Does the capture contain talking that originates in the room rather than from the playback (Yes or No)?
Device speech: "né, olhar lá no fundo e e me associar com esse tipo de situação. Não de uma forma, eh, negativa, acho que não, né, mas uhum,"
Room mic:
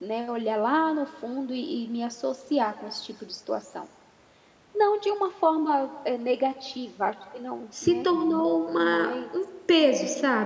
Yes